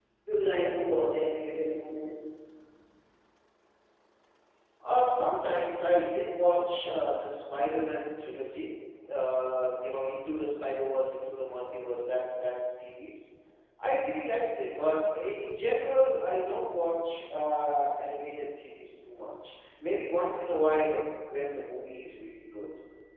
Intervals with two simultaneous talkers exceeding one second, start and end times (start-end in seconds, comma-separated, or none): none